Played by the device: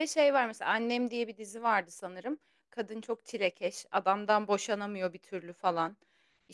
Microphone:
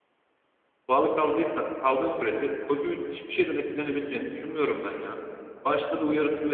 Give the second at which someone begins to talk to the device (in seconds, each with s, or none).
0.9 s